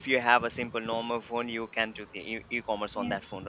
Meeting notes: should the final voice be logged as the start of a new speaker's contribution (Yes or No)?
Yes